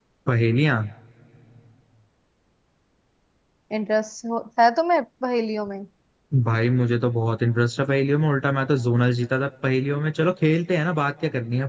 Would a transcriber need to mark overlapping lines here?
No

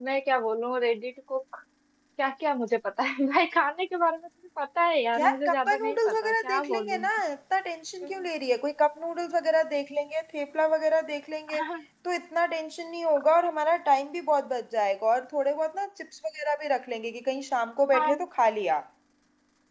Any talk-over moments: Yes, from 5.2 s

